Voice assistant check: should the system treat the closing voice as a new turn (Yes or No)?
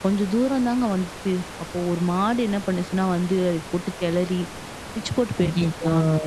No